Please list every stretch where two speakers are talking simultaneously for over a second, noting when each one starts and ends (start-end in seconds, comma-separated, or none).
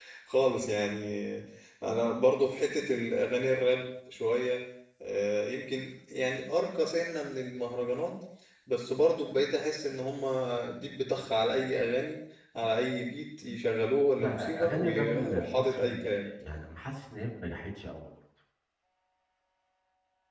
14.2-16.3